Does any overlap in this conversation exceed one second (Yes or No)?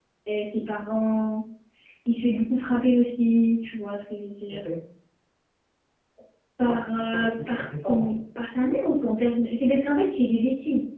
Yes